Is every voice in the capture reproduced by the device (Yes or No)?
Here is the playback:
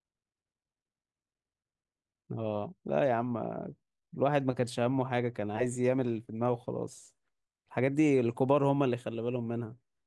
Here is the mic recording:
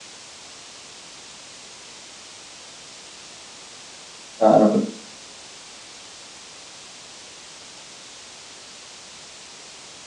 No